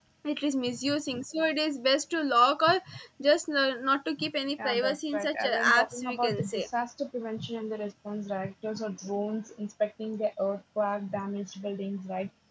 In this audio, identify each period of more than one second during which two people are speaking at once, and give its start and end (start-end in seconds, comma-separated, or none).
4.6-6.7